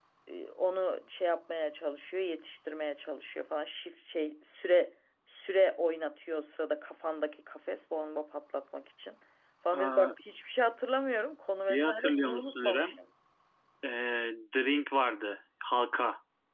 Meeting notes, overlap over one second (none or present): present